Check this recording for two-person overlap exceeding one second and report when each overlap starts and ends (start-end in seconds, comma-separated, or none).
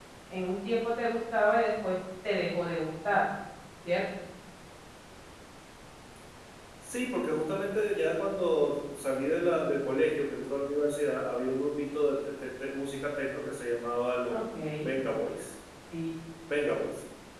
none